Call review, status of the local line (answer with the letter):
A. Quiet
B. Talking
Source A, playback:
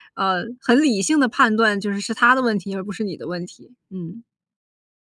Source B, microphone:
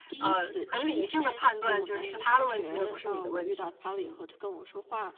B